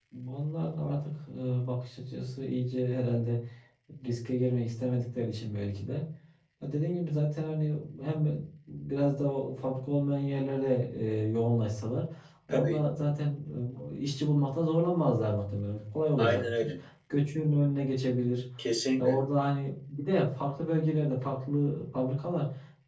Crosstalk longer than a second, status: none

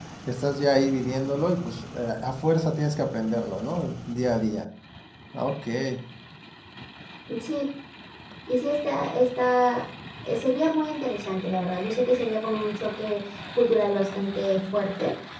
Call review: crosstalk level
none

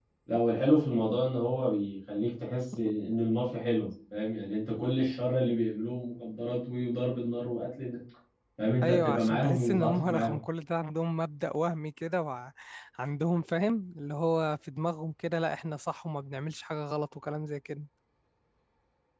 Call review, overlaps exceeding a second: present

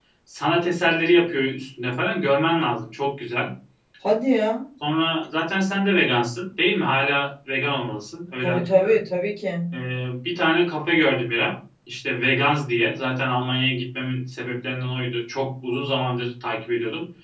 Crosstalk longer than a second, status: none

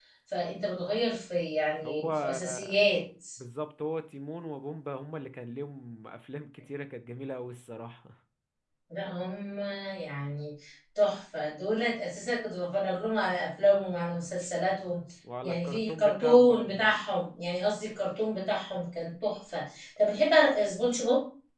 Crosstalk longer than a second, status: present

